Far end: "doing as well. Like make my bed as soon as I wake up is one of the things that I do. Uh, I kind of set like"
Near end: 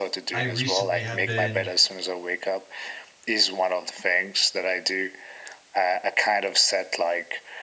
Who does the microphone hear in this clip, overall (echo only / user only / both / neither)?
both